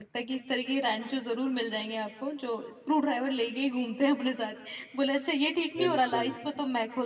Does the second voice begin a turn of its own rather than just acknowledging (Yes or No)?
No